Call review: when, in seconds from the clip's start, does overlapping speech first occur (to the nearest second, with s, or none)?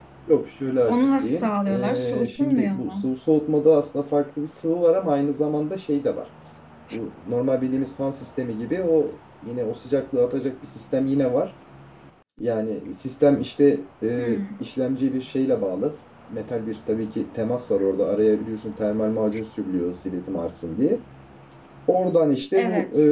1 s